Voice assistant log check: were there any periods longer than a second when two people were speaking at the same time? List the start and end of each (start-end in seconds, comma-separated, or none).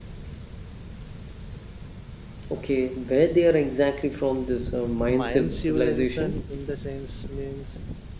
5.1-6.4